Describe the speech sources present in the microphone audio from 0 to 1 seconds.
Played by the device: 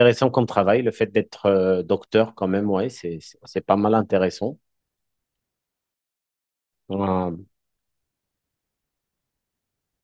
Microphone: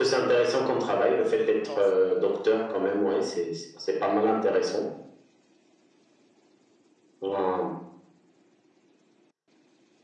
echo only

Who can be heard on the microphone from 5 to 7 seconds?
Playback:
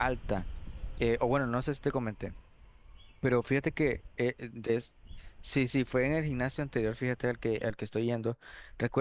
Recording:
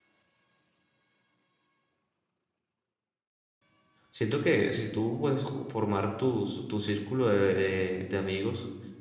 user only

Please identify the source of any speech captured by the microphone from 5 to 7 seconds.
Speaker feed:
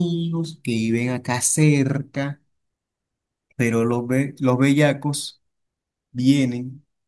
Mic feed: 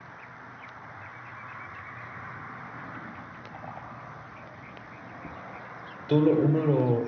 user only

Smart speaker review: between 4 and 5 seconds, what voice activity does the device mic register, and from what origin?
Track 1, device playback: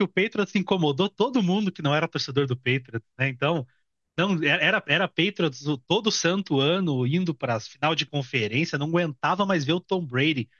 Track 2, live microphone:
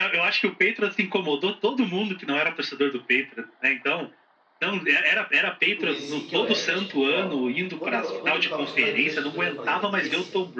echo only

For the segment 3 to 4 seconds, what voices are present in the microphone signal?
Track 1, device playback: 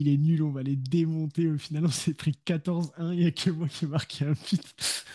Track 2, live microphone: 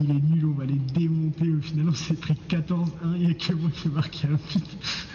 echo only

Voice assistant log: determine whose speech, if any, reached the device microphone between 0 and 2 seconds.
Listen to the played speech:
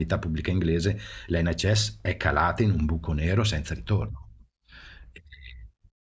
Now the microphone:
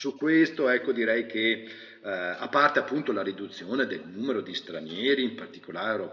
user only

